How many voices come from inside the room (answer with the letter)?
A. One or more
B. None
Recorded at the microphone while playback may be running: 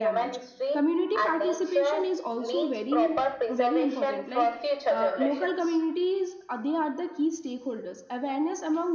A